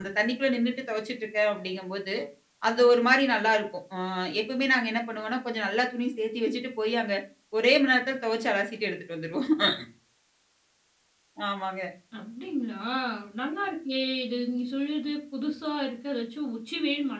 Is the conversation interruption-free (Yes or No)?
Yes